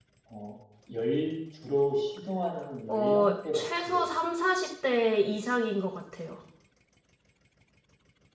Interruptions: present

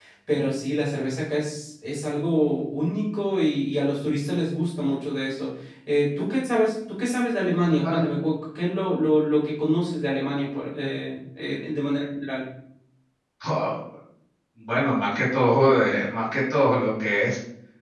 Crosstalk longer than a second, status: none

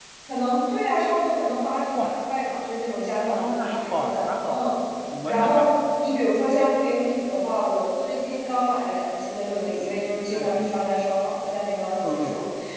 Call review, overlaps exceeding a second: present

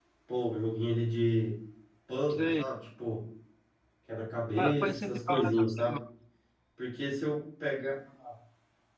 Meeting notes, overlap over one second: present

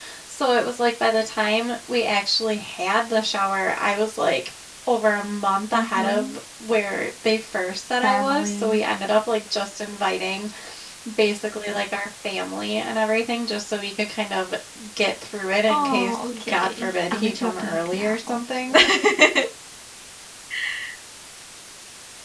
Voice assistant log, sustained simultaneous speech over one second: present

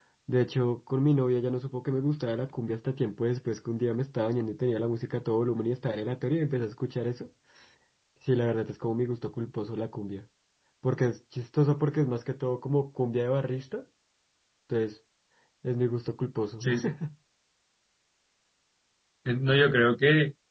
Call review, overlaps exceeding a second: none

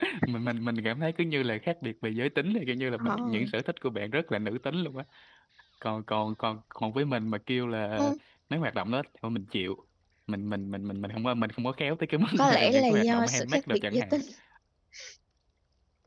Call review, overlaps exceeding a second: present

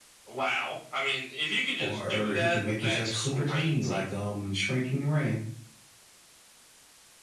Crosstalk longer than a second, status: present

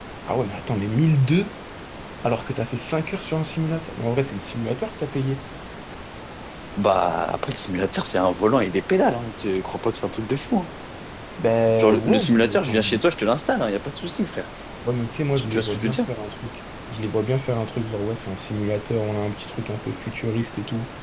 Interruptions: present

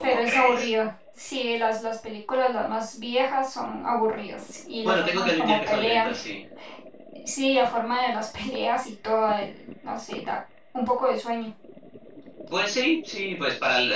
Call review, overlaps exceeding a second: present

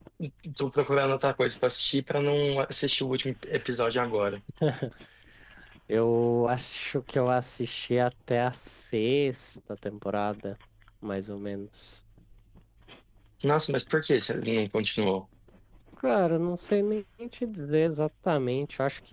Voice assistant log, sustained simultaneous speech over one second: none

